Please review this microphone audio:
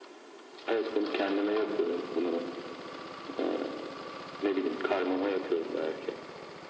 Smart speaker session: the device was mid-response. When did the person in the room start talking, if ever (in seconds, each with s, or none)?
none